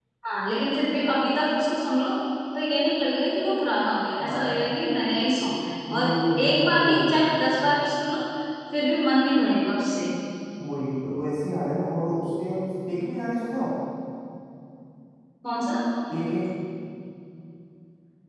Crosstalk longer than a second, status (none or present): present